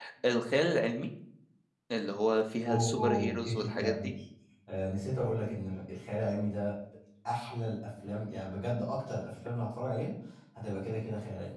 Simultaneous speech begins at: 2.7 s

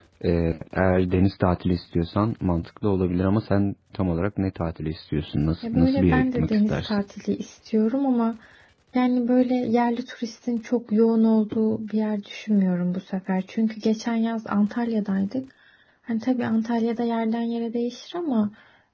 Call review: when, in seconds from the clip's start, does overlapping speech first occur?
5.6 s

